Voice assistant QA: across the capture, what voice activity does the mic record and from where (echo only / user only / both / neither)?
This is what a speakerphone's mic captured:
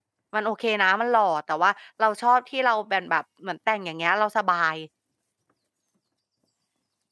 user only